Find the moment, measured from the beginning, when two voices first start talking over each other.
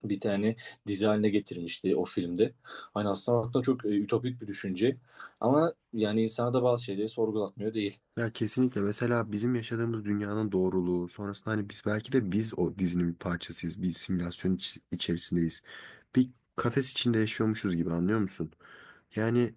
none

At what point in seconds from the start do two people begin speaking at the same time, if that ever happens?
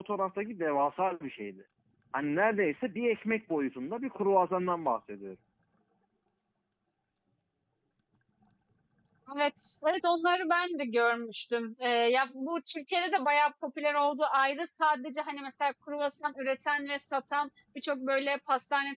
none

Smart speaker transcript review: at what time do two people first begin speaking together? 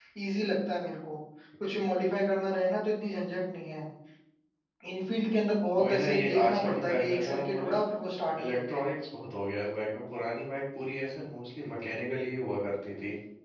5.8 s

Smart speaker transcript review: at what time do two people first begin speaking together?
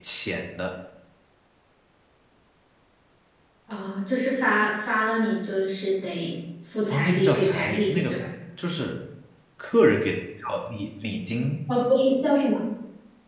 6.9 s

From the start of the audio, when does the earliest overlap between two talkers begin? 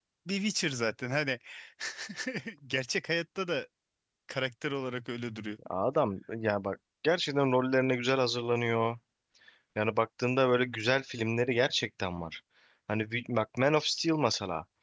none

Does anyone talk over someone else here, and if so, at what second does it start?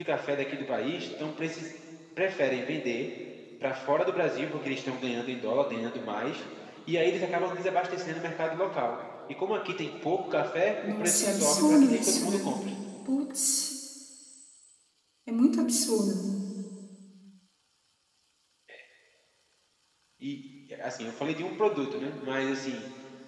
10.8 s

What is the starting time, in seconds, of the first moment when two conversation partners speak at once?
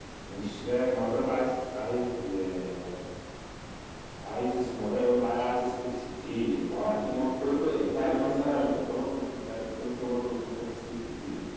7.0 s

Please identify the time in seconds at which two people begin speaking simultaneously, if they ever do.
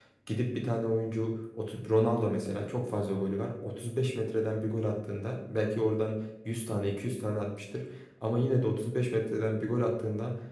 none

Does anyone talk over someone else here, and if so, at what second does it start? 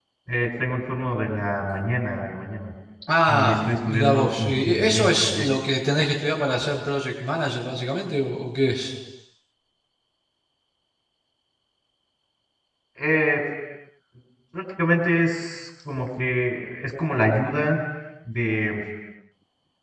3.3 s

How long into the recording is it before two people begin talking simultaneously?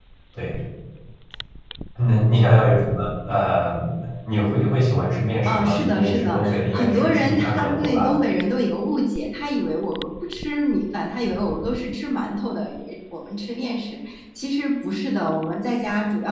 5.4 s

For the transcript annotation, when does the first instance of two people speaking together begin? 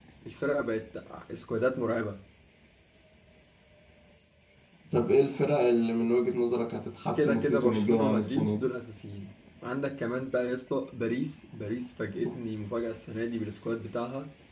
7.2 s

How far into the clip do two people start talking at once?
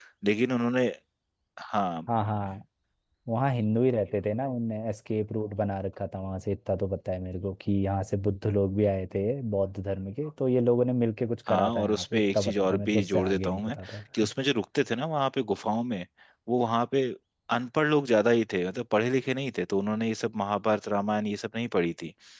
11.5 s

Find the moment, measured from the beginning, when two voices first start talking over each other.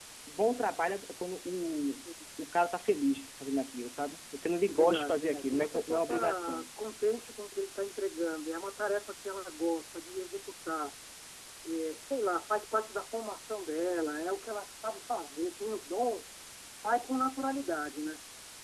4.7 s

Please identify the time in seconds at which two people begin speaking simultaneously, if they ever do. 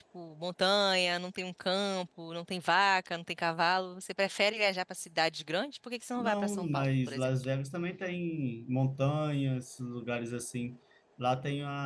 6.2 s

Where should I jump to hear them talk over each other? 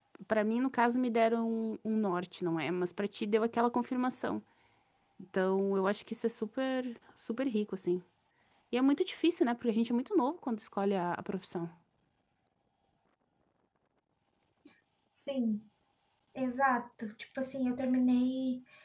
none

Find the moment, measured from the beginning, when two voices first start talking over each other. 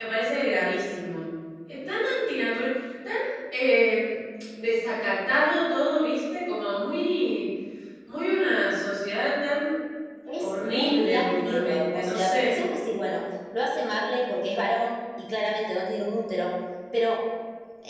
10.4 s

